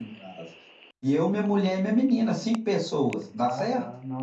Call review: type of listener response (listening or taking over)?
taking over